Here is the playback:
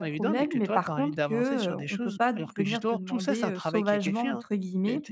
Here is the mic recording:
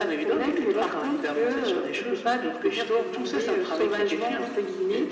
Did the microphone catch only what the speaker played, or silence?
Yes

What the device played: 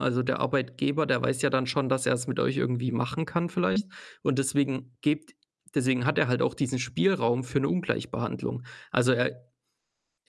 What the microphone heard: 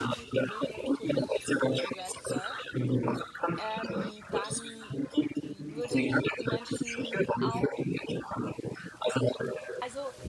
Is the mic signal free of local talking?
No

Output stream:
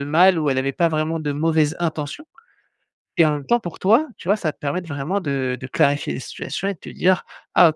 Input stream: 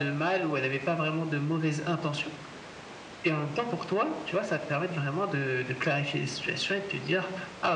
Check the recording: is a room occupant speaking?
No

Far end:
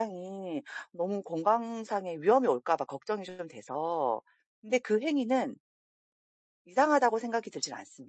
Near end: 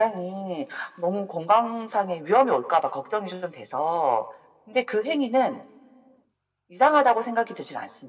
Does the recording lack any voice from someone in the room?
Yes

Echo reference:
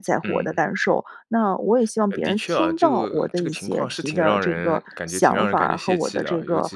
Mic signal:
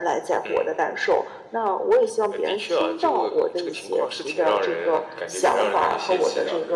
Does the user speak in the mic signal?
No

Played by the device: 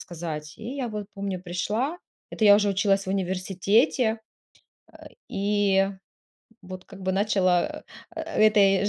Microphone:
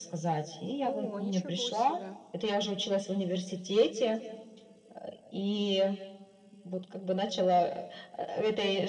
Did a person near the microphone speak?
Yes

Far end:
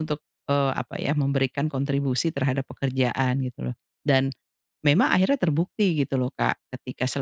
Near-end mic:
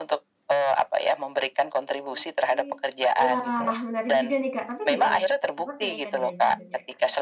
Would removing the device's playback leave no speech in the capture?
No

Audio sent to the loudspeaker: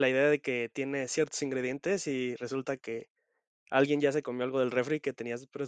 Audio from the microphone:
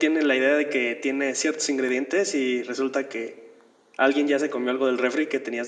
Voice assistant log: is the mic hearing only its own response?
Yes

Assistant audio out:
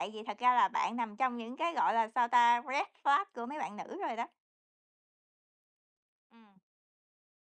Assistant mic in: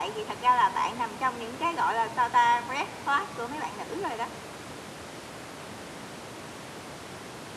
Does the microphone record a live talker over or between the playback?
No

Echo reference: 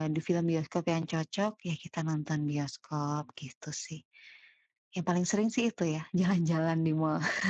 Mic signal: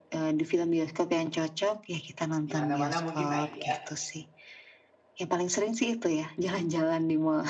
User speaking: Yes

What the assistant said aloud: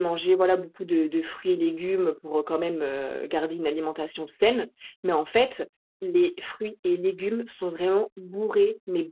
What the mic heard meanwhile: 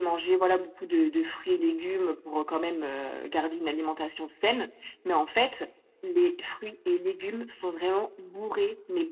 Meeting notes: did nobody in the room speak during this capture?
Yes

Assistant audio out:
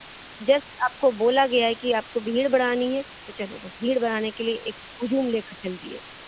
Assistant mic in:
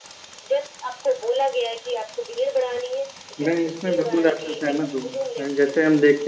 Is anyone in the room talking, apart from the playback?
Yes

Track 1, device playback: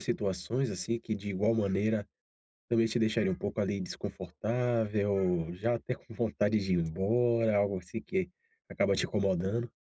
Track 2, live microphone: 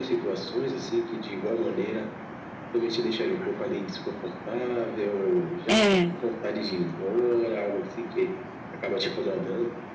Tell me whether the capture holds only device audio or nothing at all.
No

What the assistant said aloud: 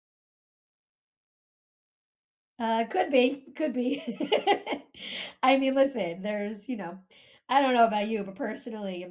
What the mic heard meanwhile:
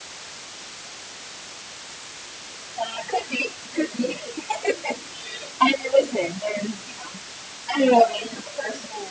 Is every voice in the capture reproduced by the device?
Yes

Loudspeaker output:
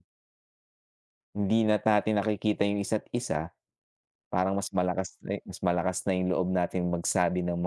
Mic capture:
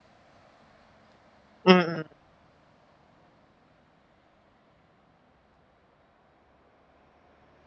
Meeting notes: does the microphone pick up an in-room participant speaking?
Yes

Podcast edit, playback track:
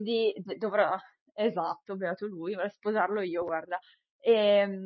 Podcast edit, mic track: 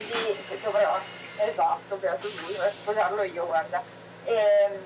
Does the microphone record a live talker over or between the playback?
No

